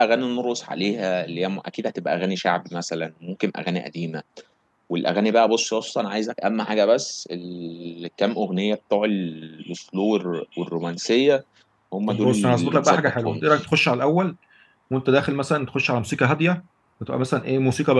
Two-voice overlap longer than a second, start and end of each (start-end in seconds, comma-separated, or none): 12.1-13.7